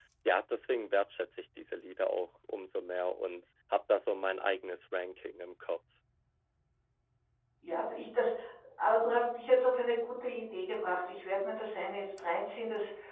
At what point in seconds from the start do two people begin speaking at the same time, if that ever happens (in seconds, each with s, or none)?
none